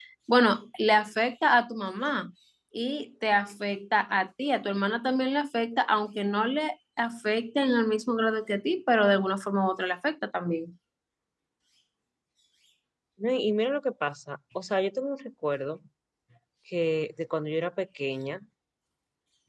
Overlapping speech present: No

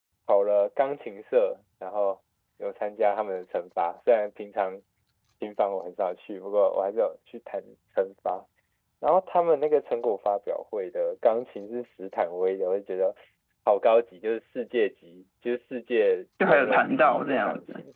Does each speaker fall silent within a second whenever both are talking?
No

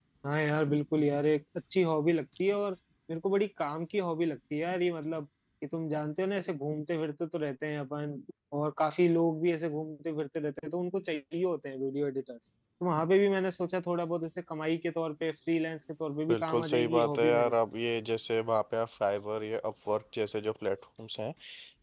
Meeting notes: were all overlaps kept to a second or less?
No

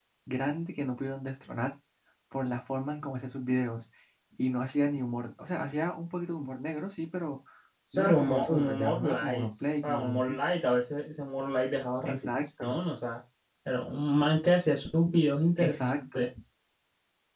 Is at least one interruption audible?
Yes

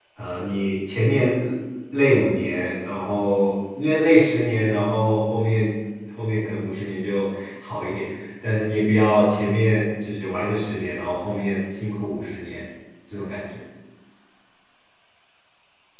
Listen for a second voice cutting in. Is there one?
No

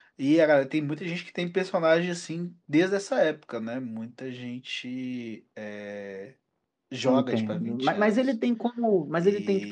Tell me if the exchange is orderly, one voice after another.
No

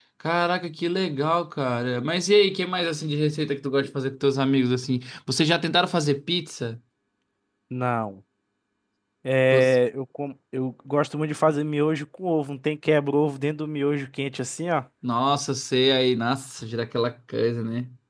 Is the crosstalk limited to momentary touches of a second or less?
Yes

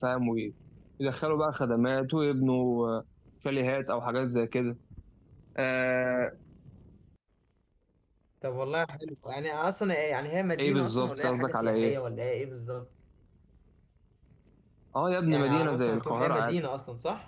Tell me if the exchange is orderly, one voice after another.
No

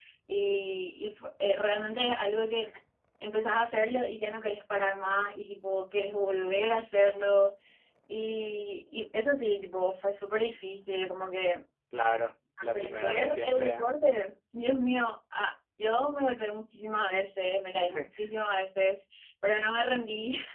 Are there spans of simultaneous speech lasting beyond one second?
Yes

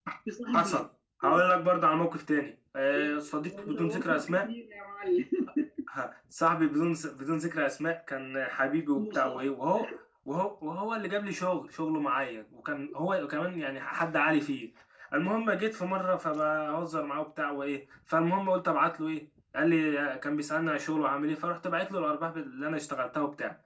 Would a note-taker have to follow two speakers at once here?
Yes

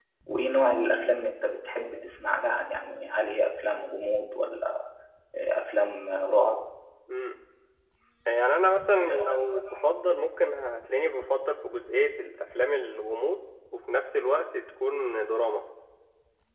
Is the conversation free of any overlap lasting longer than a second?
Yes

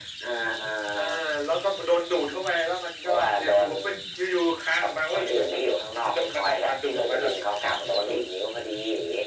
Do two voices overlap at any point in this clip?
Yes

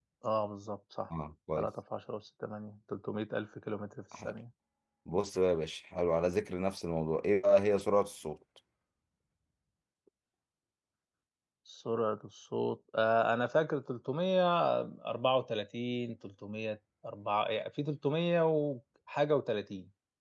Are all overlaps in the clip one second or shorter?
Yes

